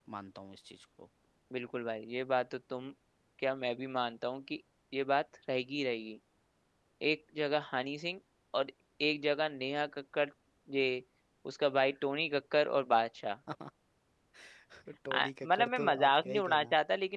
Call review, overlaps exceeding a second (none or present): present